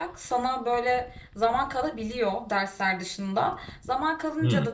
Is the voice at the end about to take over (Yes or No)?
No